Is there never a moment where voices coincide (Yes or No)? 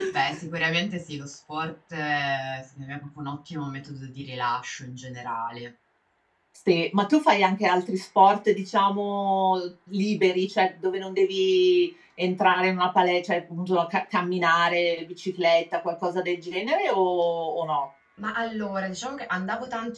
Yes